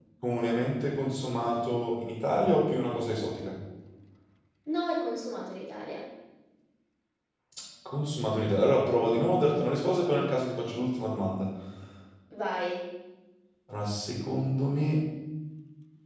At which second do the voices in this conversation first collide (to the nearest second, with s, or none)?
none